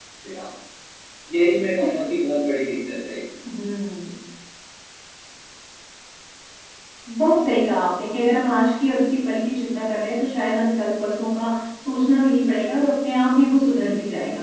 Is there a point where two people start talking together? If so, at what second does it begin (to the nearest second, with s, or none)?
none